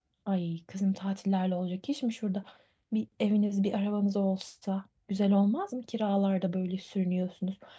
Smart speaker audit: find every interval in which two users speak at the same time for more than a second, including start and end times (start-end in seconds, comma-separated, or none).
none